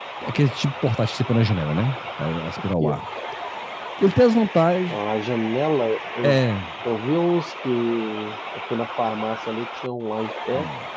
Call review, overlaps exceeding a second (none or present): none